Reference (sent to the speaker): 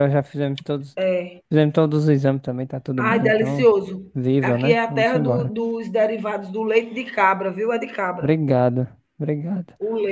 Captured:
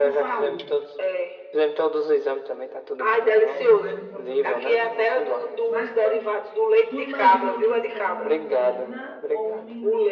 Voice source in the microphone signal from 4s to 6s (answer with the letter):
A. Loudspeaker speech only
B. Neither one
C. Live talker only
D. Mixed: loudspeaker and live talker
D